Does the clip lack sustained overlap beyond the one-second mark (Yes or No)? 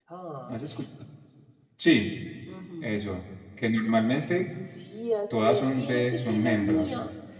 No